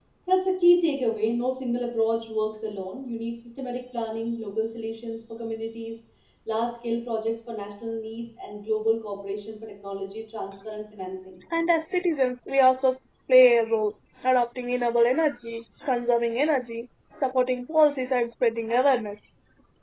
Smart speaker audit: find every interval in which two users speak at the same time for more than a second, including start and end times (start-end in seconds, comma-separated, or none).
none